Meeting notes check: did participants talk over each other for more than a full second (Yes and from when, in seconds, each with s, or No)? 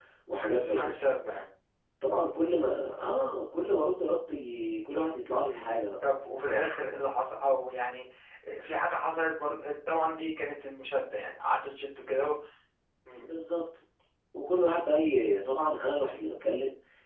No